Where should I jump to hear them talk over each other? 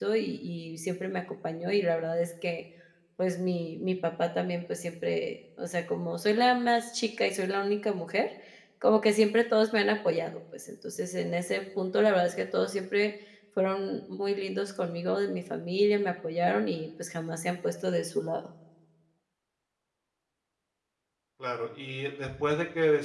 none

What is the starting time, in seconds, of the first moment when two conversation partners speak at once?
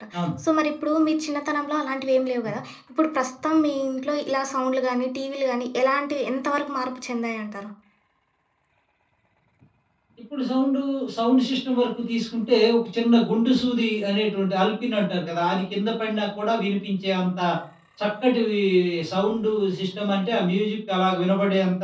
none

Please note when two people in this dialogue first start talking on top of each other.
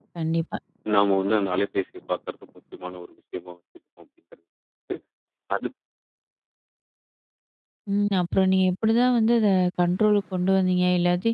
none

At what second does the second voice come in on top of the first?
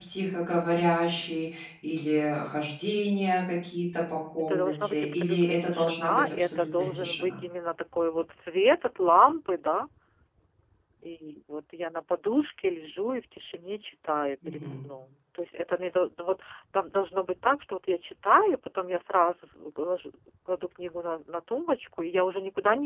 4.4 s

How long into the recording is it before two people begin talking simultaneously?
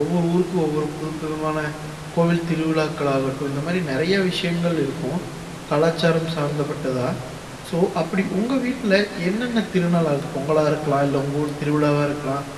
none

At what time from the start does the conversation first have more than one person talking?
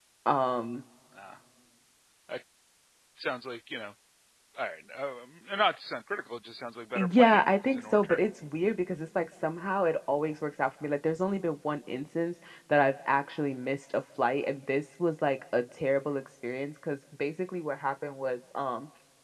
7.0 s

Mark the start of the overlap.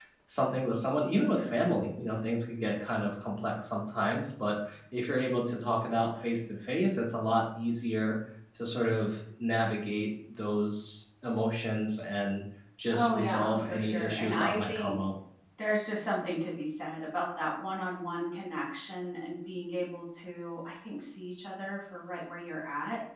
12.9 s

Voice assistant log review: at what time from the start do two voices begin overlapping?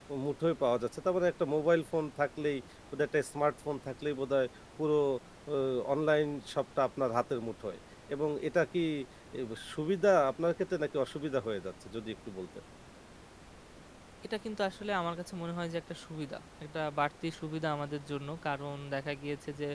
none

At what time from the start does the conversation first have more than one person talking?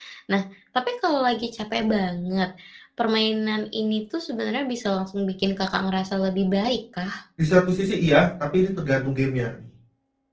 none

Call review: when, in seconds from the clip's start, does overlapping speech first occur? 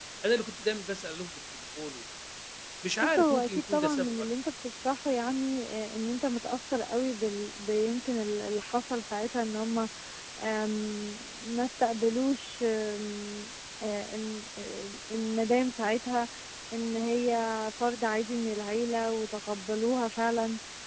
3.0 s

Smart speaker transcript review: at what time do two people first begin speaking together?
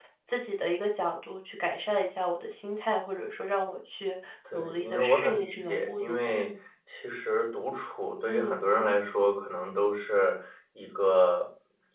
4.5 s

